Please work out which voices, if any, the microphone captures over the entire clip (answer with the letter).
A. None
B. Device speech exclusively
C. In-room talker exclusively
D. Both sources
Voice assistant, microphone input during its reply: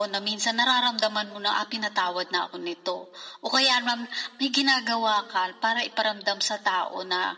B